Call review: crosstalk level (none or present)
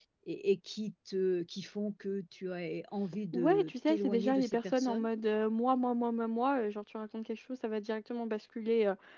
present